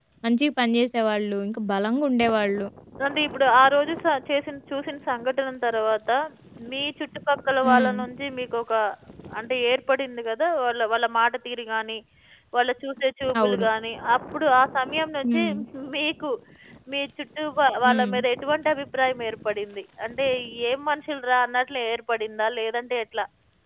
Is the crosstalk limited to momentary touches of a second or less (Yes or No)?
Yes